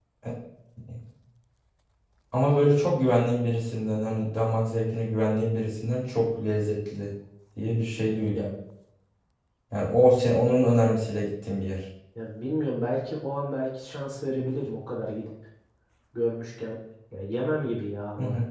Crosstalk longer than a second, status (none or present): none